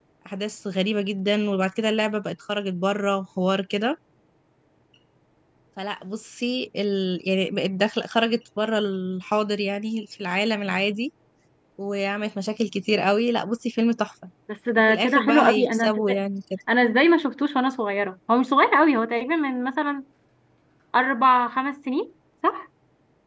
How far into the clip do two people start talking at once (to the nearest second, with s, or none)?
15 s